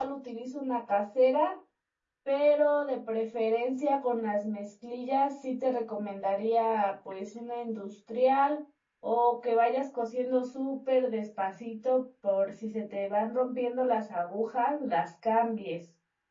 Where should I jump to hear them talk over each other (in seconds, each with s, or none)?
none